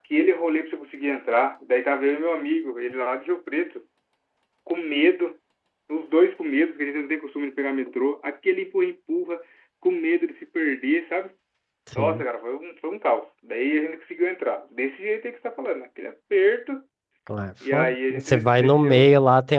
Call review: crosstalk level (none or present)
present